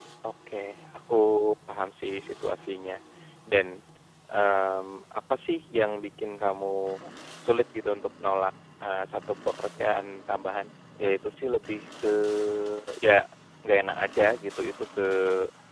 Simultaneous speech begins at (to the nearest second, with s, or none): none